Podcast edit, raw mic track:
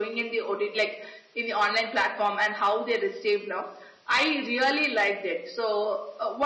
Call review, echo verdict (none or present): present